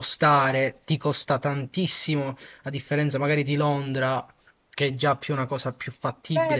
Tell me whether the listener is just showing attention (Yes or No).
No